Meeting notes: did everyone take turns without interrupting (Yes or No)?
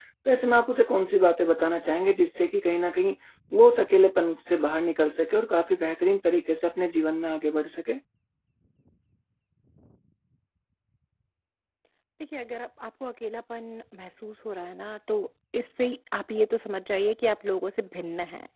Yes